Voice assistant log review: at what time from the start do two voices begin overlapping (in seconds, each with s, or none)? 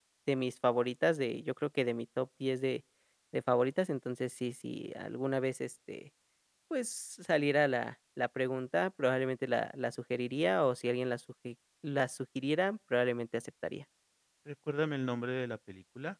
none